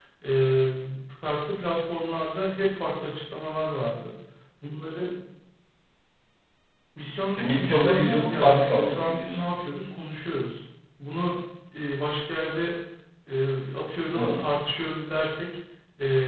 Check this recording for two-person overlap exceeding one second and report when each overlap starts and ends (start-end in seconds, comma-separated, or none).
7.4-9.4